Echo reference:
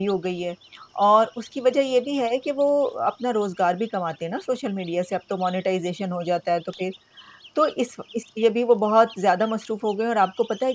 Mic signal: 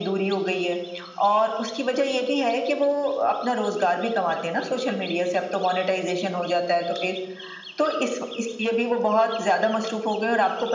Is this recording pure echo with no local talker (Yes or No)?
Yes